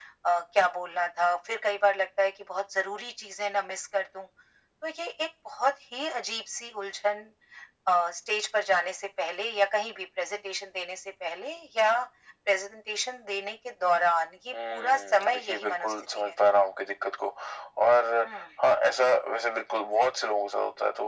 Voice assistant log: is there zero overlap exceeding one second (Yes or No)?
No